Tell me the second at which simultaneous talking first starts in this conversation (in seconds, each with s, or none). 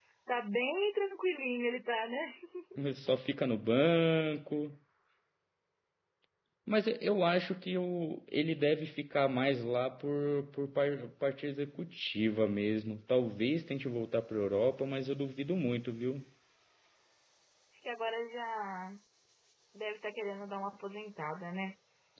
none